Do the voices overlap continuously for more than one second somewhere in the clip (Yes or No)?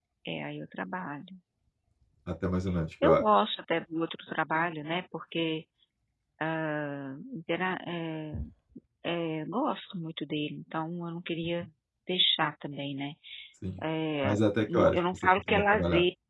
Yes